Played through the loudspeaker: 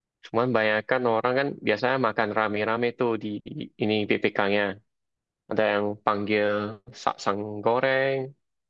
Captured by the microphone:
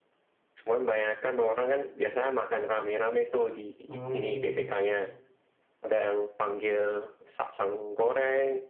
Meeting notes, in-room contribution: present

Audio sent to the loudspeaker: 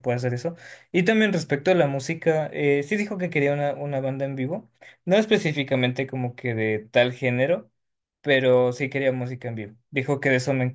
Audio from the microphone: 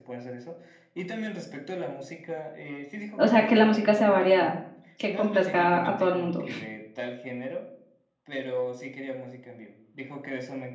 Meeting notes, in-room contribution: present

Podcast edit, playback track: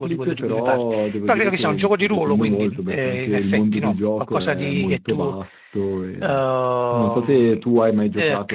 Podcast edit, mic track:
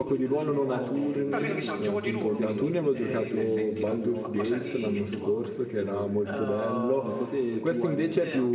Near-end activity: present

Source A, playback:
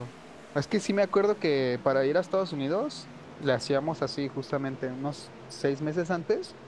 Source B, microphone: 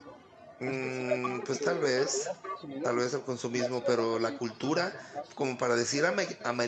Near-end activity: present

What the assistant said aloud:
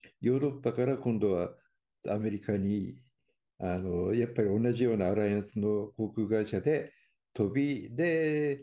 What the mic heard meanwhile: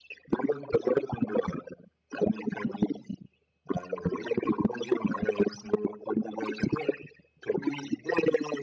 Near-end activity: none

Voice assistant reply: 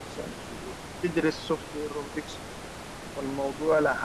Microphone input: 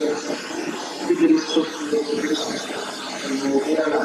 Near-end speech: none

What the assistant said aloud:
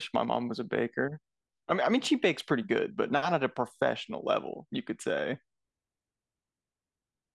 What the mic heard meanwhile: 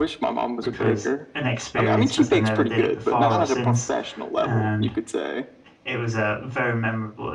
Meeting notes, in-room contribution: present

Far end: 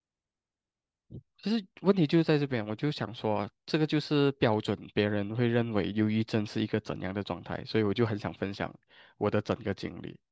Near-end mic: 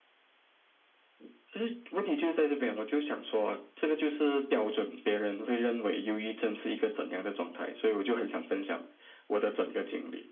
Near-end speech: none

